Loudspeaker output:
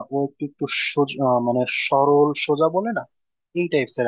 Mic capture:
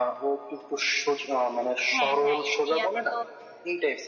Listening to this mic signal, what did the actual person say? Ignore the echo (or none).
হ্যাঁ হ্যাঁ ইন্ডিয়াতে তো